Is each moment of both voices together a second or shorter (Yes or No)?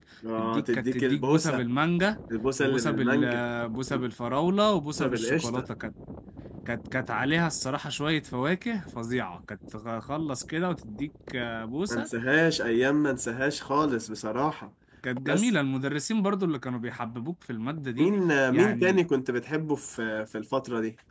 No